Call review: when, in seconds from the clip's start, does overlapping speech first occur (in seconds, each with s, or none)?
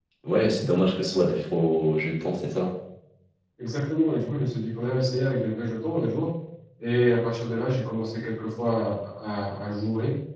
none